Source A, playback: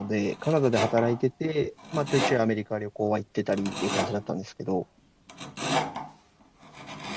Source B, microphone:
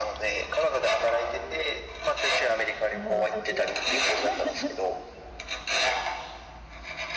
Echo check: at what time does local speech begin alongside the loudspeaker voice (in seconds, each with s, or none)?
2.9 s